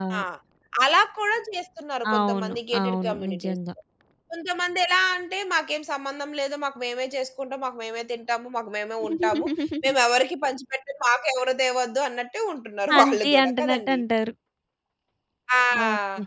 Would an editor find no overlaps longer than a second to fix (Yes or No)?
No